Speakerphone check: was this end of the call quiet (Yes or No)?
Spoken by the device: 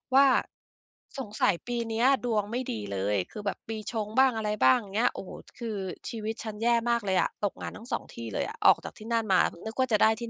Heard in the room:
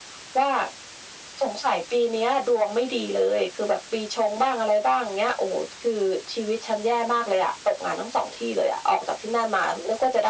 Yes